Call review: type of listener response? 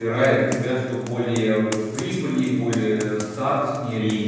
taking over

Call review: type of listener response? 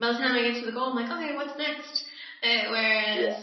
listening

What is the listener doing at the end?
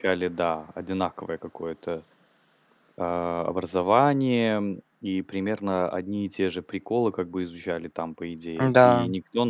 listening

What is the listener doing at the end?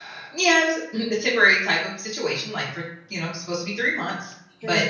listening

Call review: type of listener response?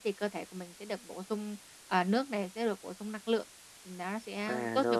taking over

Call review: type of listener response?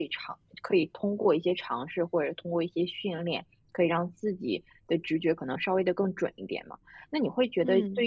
listening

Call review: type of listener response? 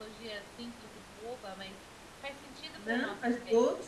taking over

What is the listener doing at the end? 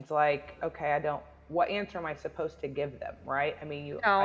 taking over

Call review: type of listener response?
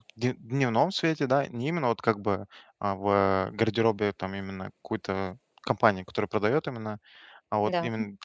listening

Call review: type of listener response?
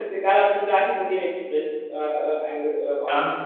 taking over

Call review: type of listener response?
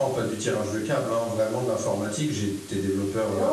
taking over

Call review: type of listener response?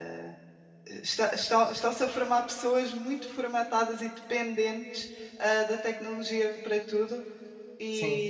listening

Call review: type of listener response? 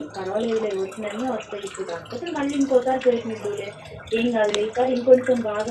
listening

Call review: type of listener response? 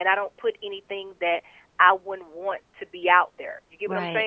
taking over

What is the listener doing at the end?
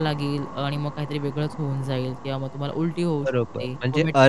taking over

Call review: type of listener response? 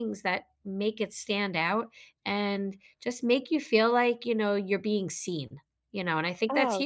taking over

